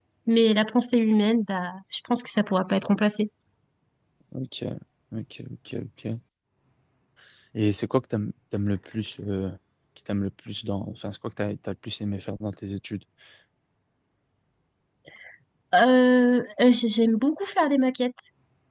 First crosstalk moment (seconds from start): none

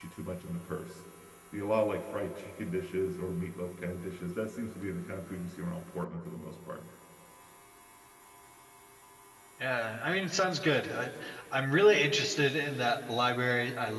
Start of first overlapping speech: none

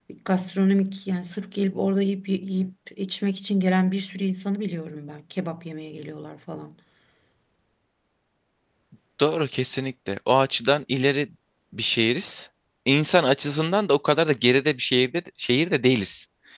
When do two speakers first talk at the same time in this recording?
none

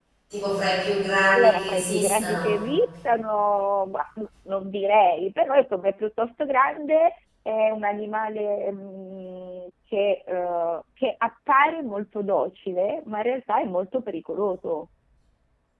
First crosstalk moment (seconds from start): 1.3 s

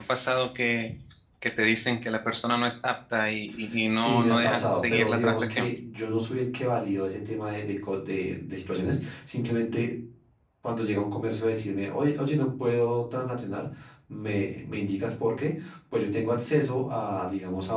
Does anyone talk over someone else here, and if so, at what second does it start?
3.9 s

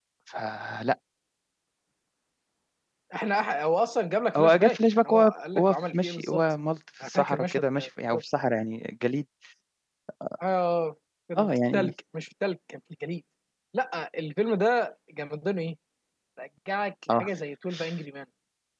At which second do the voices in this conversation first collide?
4.4 s

